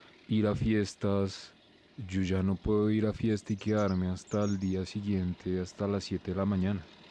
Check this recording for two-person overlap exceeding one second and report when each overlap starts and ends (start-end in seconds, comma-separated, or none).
none